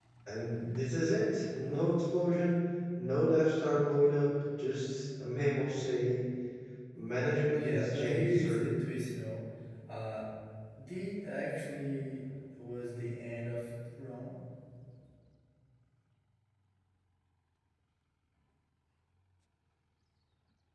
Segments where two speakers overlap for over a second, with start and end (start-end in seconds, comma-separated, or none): 7.5-8.7